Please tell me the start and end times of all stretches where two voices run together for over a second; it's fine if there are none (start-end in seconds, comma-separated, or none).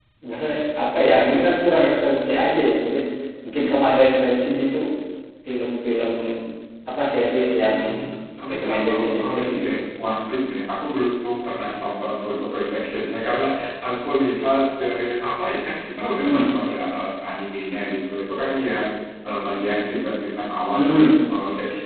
8.5-9.7